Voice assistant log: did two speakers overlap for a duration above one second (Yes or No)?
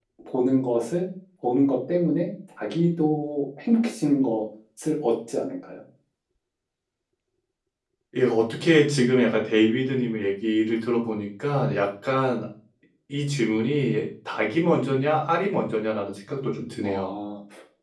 No